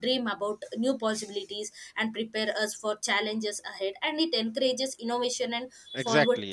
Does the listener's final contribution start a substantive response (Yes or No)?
Yes